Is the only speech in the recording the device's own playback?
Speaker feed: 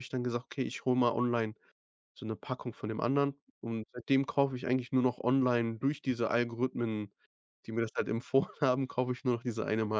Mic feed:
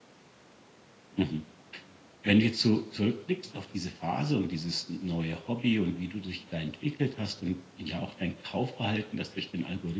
No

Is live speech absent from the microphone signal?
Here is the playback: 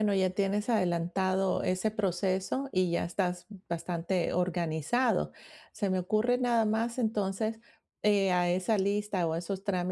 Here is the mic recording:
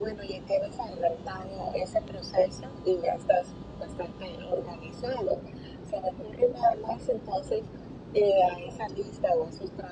Yes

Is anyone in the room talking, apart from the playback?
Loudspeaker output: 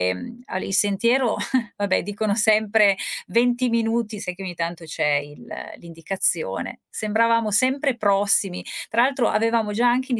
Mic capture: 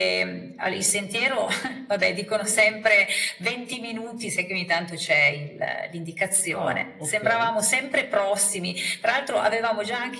Yes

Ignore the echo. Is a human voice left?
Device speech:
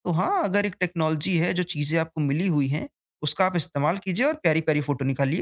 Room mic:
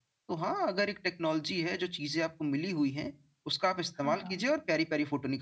Yes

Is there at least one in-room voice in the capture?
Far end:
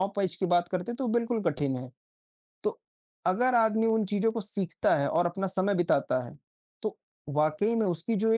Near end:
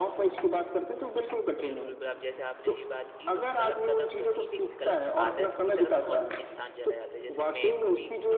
Yes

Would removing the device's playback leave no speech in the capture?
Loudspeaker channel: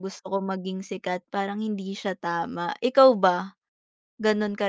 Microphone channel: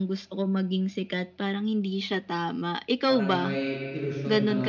No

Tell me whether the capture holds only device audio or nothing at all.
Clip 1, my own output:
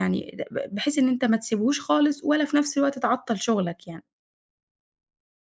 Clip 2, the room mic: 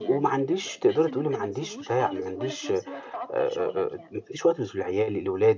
No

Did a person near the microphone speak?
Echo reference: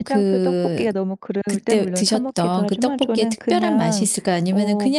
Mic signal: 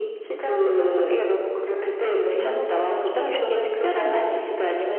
Yes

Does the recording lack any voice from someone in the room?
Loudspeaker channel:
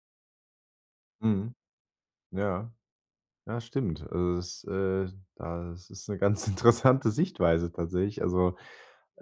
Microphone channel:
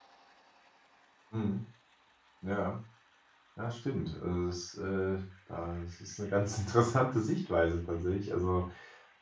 Yes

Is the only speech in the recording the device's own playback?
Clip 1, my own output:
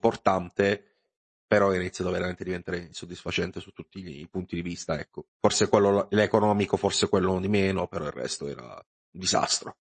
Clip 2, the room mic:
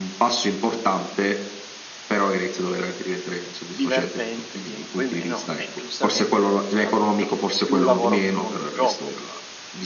No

